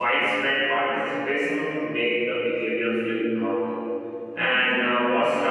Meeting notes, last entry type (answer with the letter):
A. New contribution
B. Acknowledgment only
B